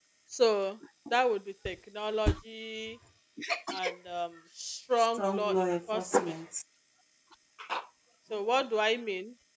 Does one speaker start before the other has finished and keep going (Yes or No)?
Yes